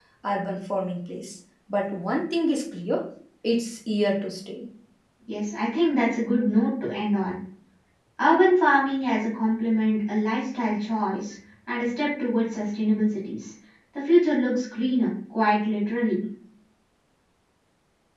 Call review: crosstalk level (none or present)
none